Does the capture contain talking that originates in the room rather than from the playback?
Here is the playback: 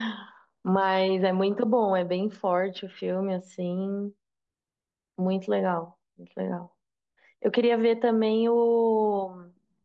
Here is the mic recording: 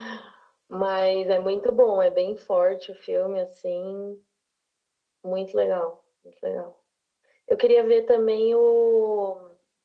No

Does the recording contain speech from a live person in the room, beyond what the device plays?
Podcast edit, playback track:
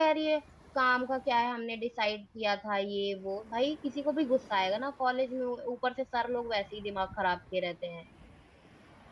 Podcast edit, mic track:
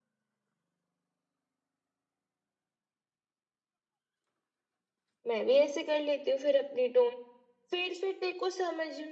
Yes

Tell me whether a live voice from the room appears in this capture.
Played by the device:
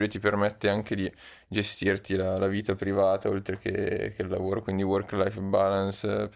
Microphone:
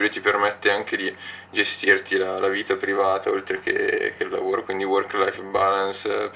No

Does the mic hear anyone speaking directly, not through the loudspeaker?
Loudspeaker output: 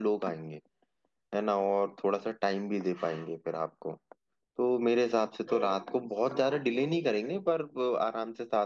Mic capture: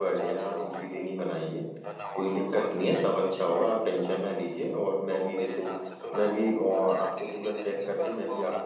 Yes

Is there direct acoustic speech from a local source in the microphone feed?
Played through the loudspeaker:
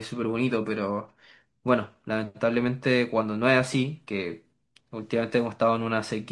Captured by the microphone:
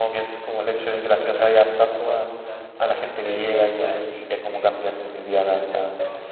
Yes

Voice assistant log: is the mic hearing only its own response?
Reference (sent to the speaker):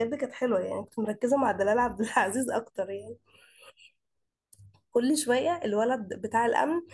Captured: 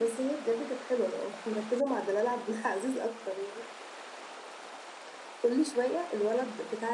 Yes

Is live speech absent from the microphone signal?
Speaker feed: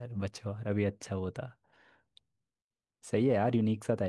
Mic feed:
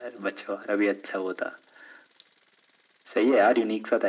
Yes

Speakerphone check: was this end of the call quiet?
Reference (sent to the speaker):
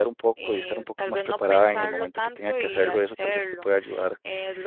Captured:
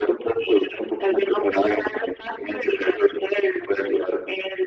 Yes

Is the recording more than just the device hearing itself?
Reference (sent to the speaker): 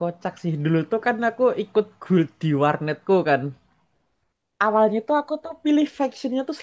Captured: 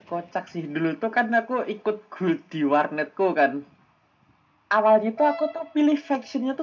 No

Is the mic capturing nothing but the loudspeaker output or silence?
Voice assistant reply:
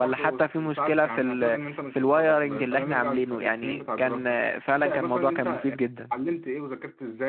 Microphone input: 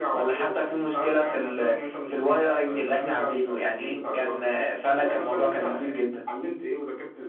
Yes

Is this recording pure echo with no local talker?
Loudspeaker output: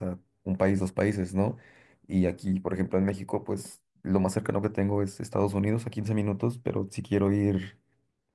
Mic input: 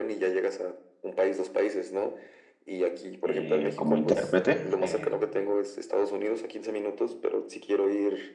No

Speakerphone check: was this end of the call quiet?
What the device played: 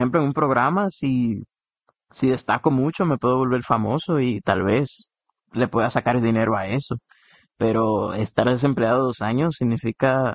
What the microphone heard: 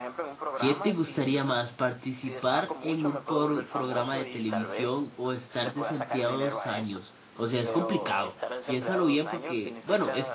No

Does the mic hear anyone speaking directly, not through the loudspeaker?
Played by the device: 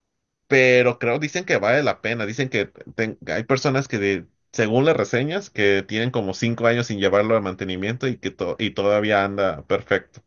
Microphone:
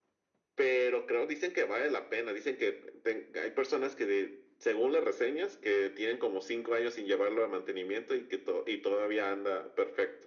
No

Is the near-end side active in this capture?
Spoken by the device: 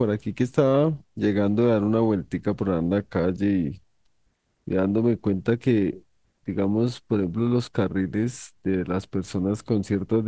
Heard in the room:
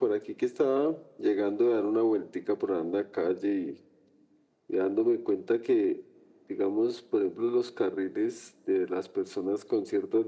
No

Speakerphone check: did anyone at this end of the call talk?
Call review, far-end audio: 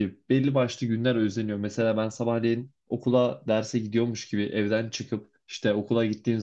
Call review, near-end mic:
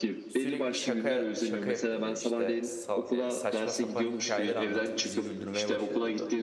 Yes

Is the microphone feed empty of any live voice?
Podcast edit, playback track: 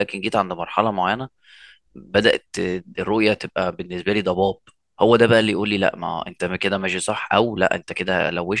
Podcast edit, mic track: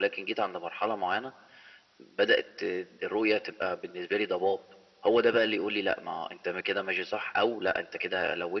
Yes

